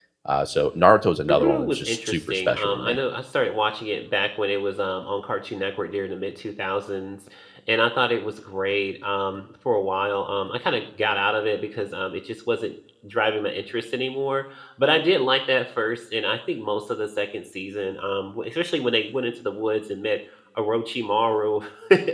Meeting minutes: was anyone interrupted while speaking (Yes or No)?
Yes